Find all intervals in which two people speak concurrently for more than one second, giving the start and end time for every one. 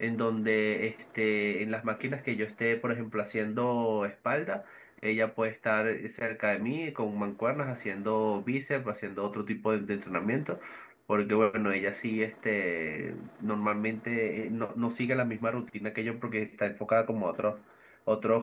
none

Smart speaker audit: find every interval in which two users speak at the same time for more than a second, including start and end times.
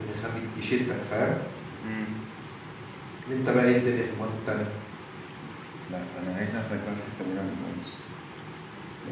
none

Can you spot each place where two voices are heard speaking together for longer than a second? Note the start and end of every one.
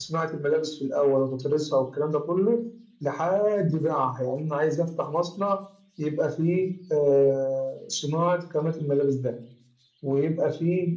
none

